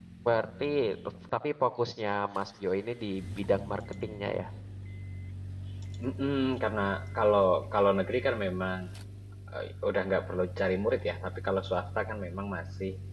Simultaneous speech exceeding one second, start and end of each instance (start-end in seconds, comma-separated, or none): none